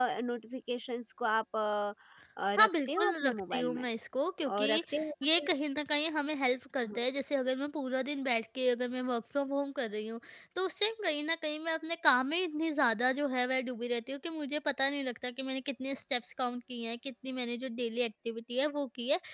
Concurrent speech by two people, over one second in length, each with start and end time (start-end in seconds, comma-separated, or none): 2.6-3.8